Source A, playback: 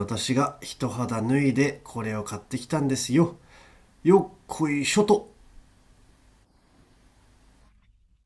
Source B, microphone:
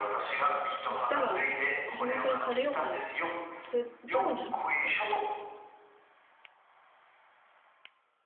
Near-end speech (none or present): present